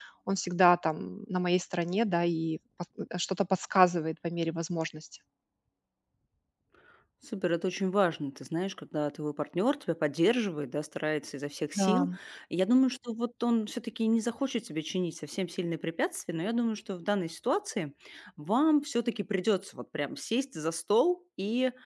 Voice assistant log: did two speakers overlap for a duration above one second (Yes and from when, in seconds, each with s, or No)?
No